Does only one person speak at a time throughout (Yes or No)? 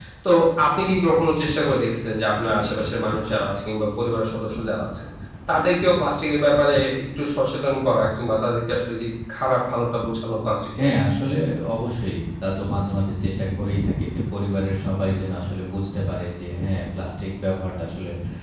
Yes